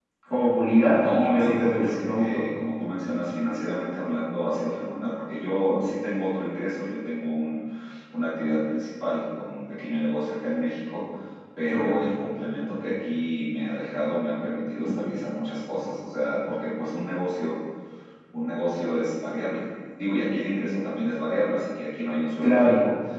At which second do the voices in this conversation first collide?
1.0 s

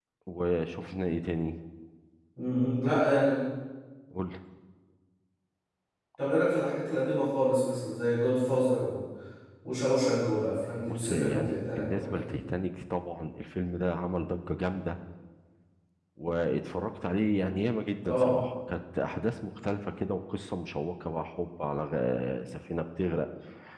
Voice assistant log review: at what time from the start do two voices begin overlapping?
10.9 s

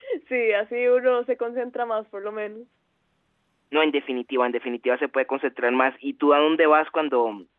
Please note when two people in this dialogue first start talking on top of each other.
none

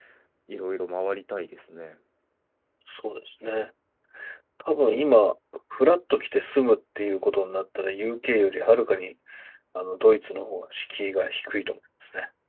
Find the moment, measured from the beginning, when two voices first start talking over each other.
none

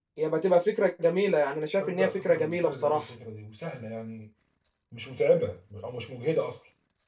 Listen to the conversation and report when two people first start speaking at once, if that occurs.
1.8 s

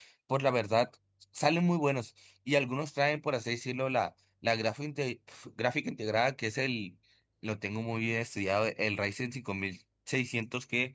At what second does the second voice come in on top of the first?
none

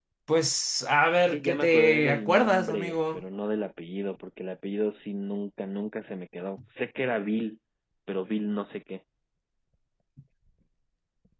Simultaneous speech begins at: 1.3 s

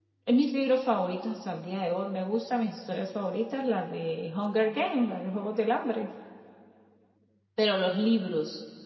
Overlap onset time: none

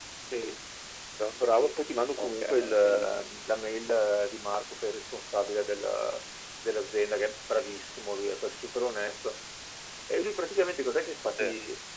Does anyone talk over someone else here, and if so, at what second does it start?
1.3 s

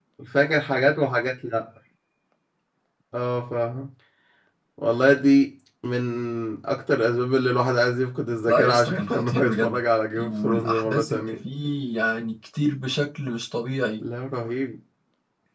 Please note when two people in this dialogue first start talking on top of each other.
8.5 s

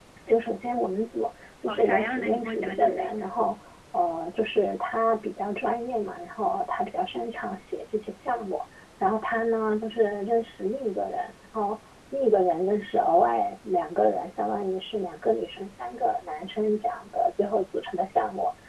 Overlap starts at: 1.6 s

